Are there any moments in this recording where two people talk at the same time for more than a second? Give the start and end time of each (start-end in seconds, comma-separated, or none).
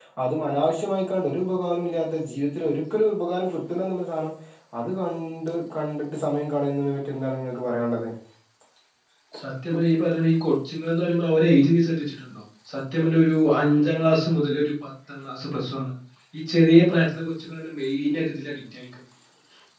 none